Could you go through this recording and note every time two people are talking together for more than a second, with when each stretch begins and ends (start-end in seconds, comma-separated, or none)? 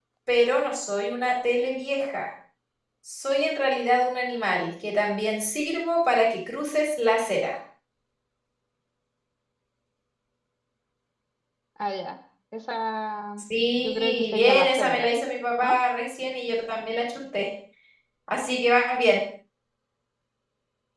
13.8-15.1